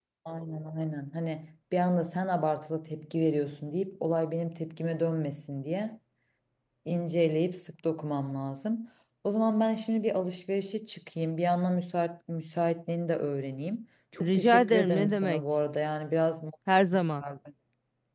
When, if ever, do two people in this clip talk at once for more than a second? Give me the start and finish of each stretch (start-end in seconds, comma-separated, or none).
14.2-15.4